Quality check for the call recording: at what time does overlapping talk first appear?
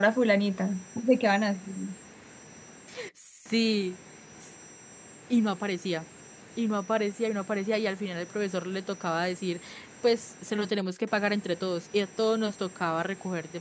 none

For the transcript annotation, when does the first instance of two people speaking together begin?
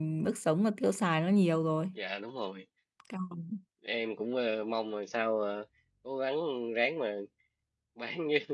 none

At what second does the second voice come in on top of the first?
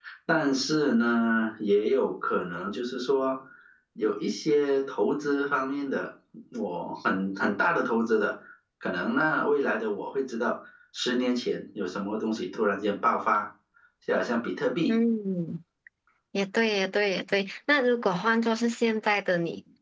none

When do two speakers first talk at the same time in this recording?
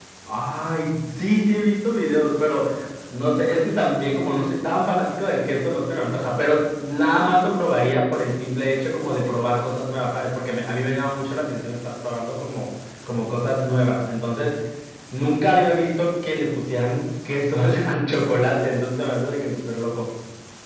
none

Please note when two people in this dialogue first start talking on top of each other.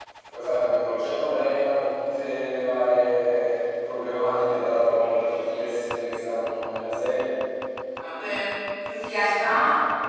none

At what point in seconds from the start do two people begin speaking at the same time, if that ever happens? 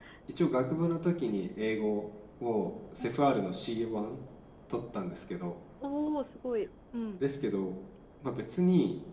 none

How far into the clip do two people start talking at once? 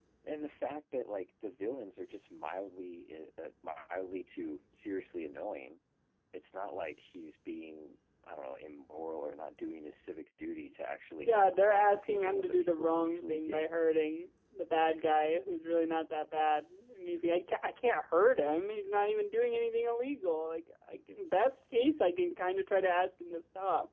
11.2 s

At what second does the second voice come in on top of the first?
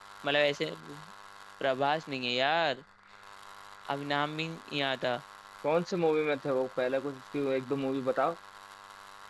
none

